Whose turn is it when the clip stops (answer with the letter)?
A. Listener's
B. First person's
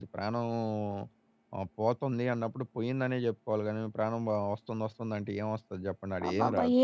A